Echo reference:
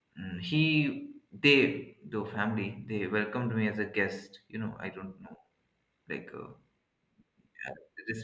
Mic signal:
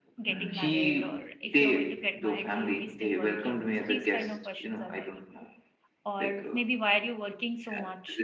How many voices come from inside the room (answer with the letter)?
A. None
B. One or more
B